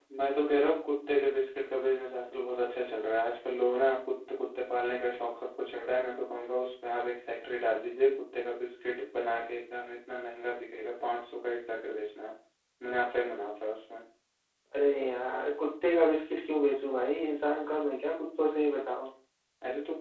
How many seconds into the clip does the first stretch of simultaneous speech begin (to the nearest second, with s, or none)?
none